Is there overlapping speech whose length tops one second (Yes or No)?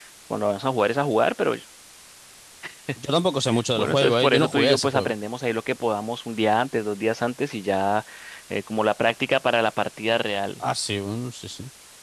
Yes